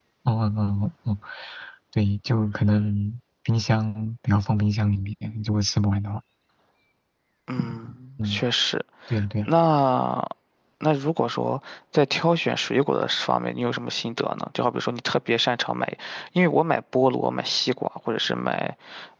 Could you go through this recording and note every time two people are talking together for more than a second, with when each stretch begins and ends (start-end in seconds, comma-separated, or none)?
none